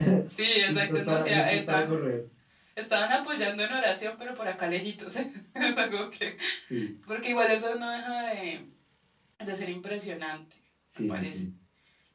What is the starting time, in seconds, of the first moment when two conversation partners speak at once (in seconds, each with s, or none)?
0.7 s